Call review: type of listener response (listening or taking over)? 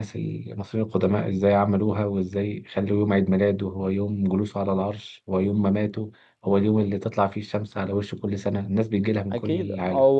taking over